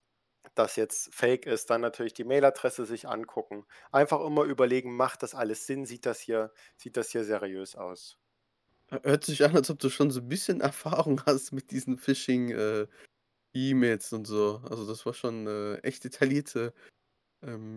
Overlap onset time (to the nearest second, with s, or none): none